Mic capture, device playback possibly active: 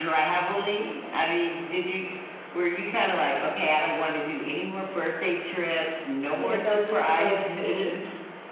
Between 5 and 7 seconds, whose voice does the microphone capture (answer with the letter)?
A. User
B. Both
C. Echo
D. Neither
B